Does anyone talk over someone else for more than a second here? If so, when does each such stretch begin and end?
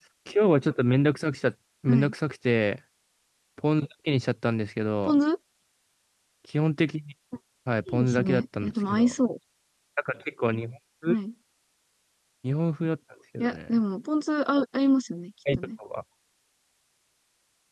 7.9-9.1

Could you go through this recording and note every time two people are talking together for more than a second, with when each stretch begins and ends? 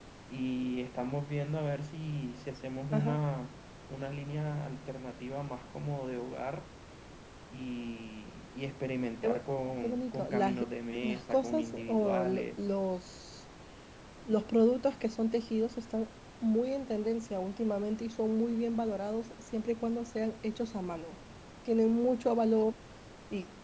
9.2-10.6, 11.0-12.6

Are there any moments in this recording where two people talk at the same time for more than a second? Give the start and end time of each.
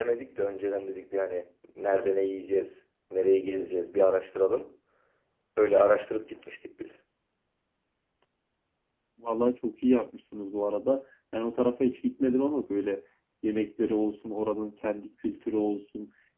none

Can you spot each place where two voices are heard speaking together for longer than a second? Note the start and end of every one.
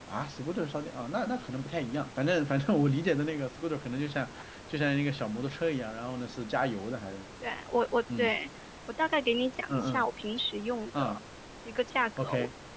none

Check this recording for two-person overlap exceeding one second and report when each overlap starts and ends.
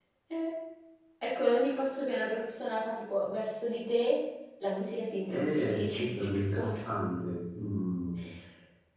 5.2-6.7

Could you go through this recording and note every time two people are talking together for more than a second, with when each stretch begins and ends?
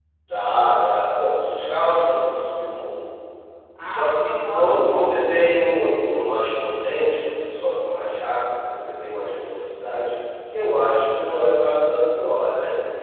3.8-5.3

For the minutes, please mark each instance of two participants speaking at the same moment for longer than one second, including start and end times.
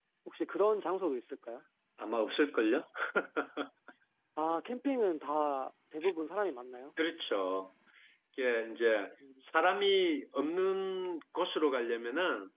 none

